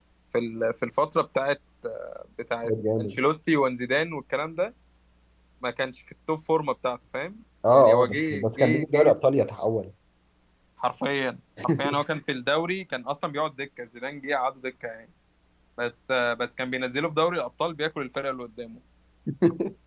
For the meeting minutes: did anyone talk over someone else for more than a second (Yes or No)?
Yes